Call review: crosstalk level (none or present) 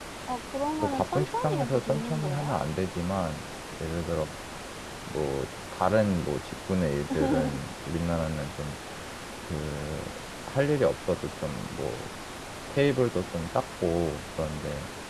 present